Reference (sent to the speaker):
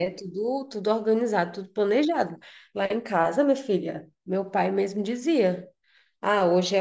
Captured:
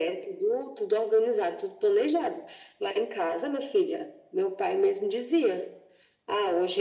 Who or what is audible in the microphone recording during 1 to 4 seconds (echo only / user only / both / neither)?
echo only